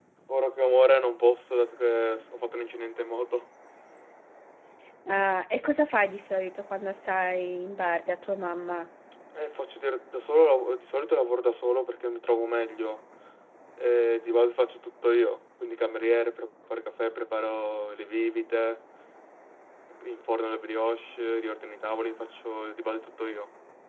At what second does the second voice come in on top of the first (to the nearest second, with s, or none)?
none